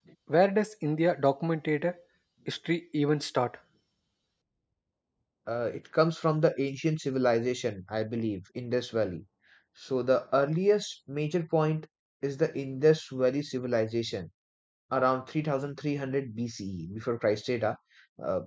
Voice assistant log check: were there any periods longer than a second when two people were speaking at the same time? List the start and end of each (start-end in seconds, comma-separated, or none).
none